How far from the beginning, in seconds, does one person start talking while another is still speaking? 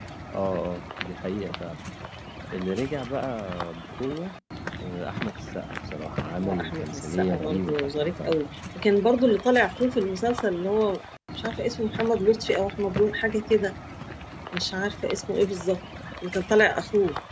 6.4 s

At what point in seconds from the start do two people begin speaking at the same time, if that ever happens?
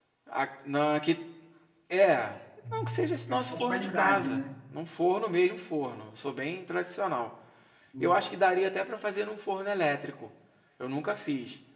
2.7 s

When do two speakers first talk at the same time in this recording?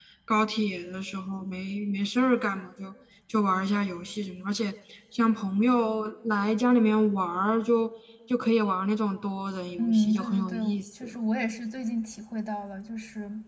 9.8 s

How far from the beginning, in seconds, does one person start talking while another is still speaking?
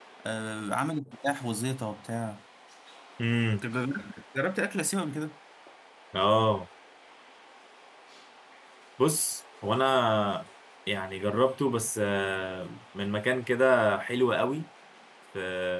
none

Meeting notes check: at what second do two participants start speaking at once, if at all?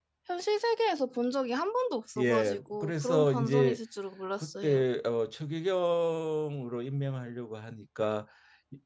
2.2 s

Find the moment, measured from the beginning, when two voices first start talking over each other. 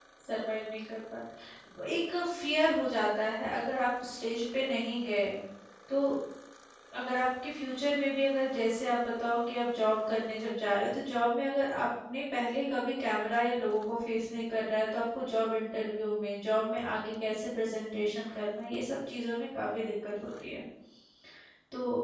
none

